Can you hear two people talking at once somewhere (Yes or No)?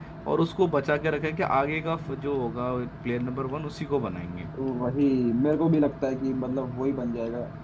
No